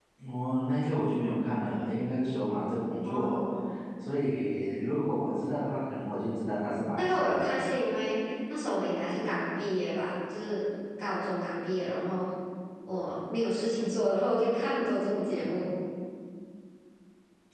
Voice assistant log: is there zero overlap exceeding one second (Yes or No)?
Yes